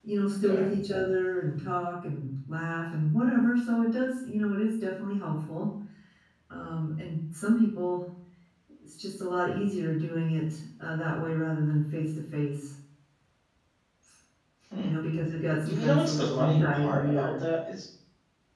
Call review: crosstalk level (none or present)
present